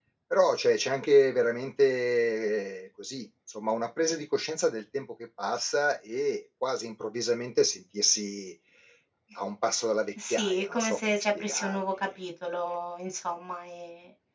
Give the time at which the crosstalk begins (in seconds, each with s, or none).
10.2 s